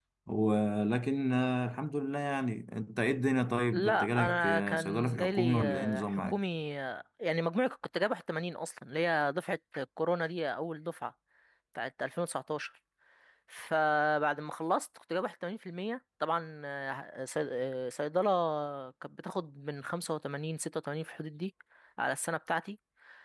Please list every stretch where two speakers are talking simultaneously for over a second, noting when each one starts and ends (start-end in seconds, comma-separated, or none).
3.7-6.4